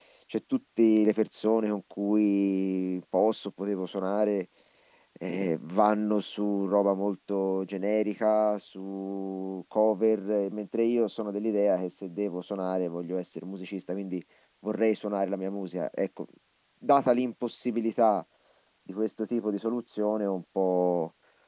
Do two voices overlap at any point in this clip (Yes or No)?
No